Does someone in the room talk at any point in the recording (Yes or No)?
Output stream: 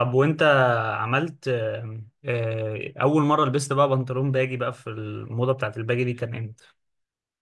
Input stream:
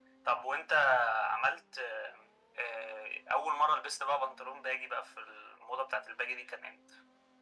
No